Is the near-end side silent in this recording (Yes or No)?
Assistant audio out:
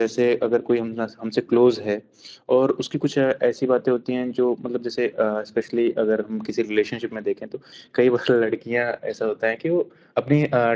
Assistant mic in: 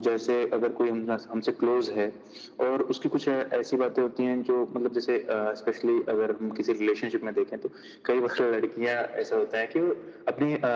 Yes